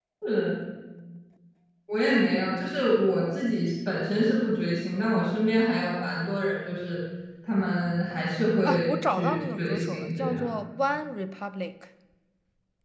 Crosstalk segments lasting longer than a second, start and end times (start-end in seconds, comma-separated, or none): 8.1-10.5